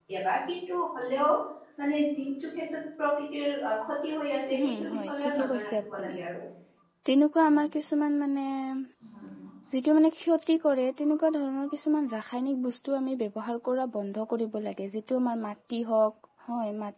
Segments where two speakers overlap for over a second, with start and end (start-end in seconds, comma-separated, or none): 4.5-6.2